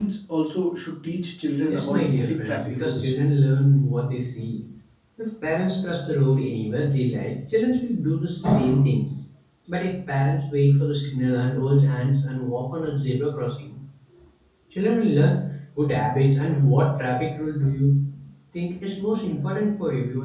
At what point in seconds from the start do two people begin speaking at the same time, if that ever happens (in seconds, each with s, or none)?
1.7 s